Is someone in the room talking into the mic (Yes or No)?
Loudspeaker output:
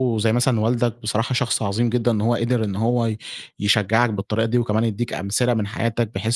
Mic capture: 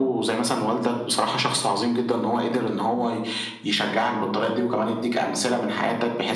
No